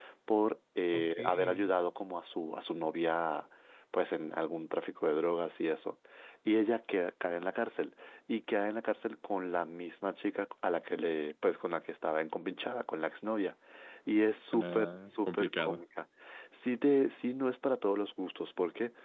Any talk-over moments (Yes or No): Yes